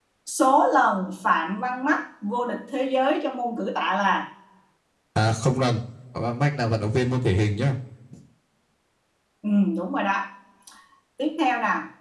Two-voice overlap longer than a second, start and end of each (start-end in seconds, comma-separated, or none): none